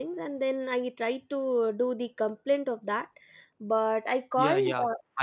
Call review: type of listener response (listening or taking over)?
taking over